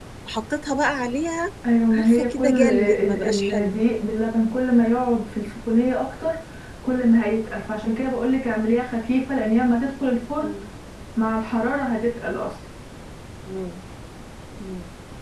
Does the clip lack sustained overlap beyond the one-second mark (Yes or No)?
No